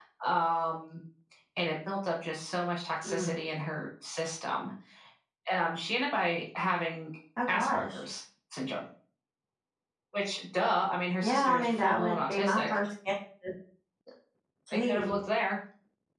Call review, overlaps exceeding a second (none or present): present